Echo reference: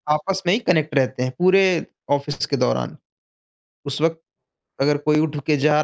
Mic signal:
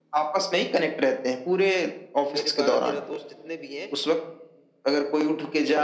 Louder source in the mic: echo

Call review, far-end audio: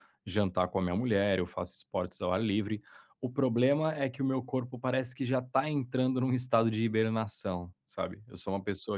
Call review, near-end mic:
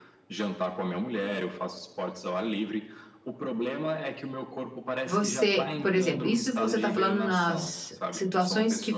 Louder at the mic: user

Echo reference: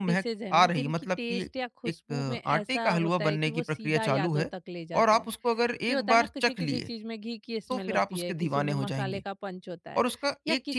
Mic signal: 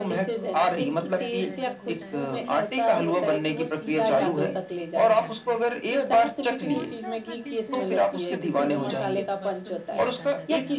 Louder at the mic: echo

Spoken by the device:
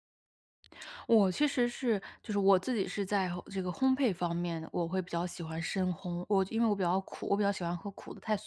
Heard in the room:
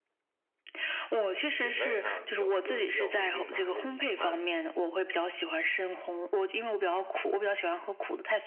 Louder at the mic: echo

